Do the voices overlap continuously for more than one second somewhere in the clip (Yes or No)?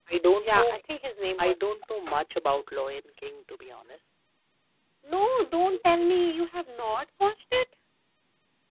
No